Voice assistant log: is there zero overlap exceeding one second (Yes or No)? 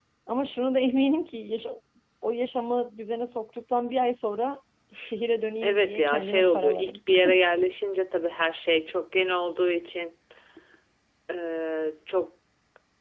No